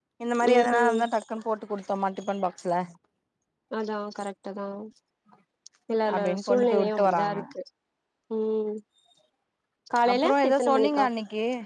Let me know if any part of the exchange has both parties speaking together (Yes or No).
Yes